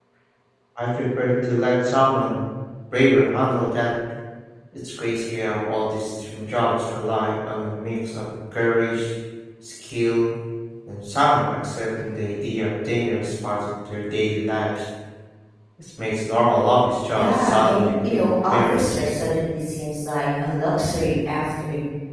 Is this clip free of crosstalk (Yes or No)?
No